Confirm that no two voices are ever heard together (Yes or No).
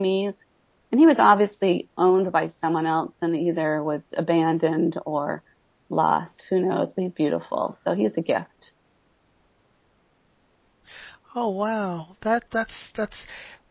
Yes